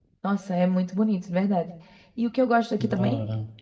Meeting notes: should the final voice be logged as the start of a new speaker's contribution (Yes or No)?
No